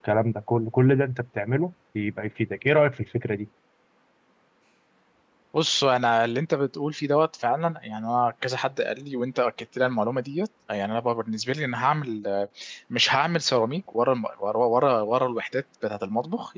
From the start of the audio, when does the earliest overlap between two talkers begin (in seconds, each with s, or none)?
none